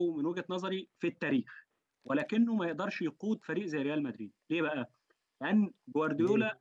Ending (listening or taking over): listening